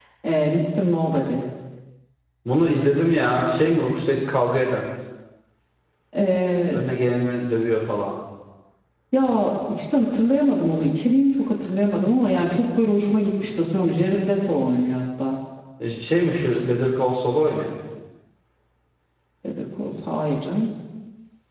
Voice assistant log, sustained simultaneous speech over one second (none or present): none